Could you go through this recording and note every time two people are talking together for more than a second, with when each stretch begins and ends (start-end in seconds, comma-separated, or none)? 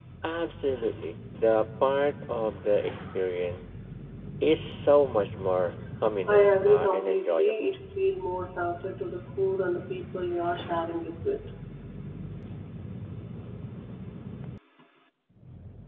6.3-7.7